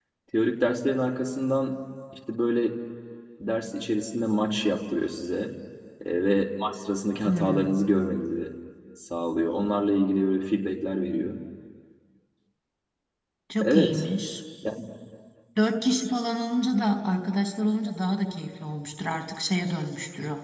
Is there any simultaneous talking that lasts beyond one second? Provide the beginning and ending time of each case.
none

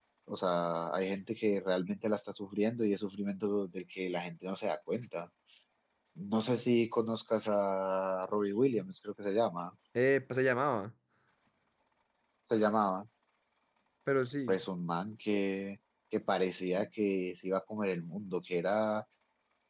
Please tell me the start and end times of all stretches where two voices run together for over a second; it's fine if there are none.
none

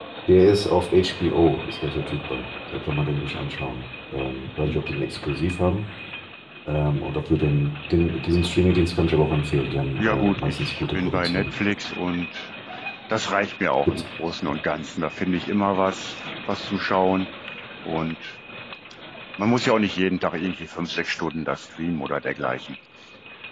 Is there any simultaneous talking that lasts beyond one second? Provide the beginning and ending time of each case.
10.0-11.5

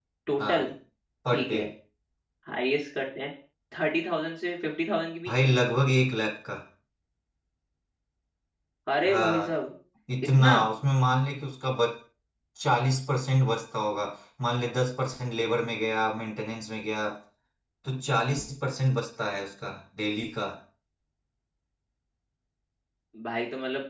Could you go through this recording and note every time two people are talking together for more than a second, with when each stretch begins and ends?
none

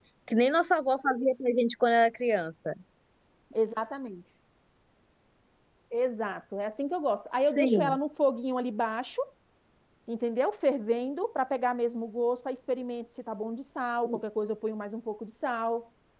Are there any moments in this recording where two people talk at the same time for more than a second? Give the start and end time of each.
none

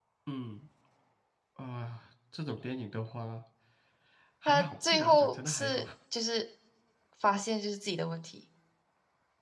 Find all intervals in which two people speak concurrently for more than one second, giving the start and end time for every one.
4.5-5.8

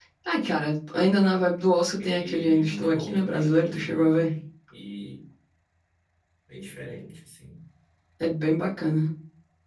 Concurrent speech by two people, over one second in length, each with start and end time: 2.0-4.3

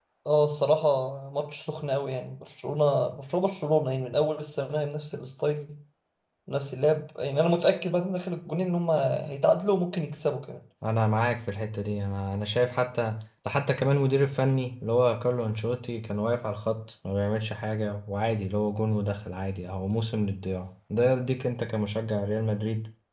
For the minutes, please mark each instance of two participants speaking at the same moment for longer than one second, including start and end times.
none

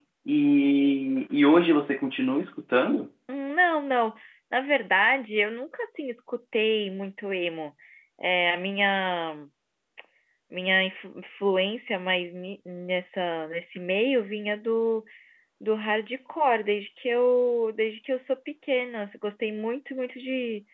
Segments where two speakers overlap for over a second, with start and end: none

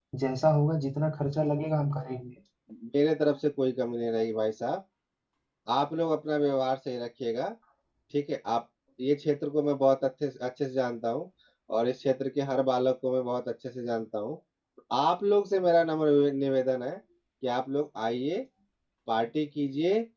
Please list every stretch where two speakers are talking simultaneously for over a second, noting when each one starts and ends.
none

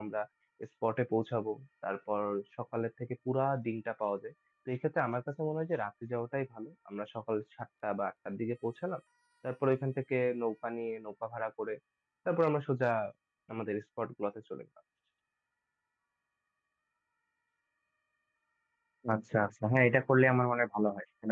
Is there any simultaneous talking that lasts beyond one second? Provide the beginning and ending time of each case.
none

